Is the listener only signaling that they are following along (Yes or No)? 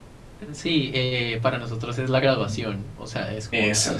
Yes